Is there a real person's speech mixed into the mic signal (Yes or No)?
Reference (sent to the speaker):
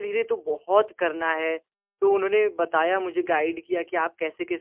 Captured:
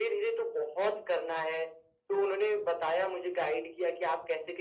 No